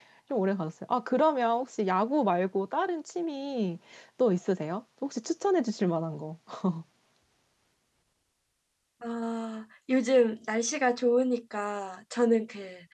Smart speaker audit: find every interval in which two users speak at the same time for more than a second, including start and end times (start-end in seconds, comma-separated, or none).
none